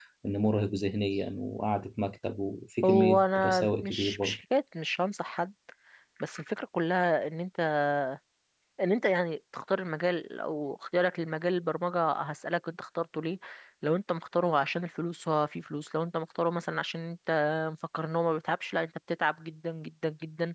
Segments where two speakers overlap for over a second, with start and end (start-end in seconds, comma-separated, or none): 2.8-4.4